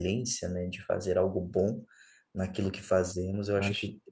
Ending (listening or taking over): listening